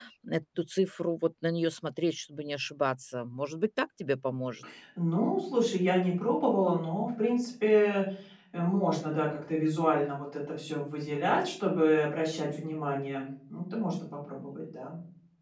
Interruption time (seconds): none

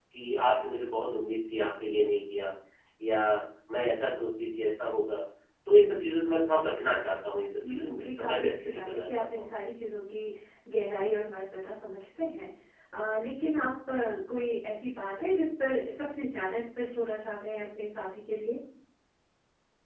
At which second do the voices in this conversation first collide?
7.6 s

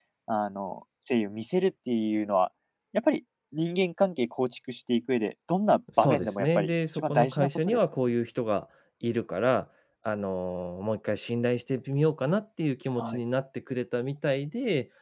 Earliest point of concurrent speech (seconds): 5.9 s

